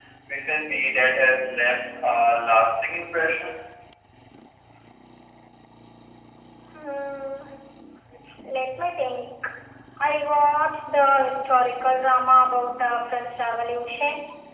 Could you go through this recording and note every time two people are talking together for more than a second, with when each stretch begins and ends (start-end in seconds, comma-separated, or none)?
none